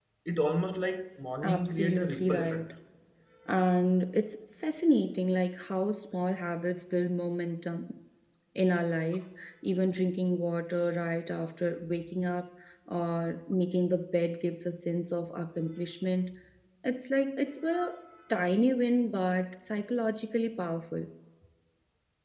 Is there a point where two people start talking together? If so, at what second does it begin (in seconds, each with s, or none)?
1.4 s